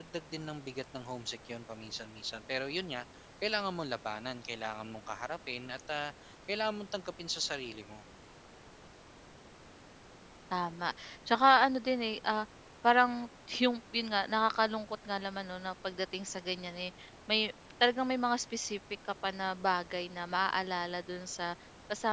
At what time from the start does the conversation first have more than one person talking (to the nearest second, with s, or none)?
none